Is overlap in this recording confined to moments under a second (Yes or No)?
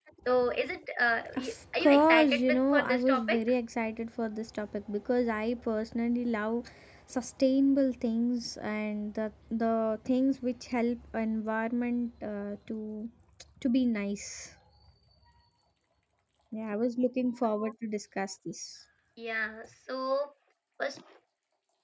No